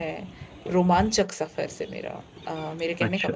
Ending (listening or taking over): taking over